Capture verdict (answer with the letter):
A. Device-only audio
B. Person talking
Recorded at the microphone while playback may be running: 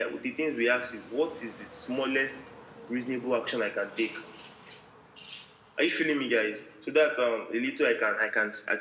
A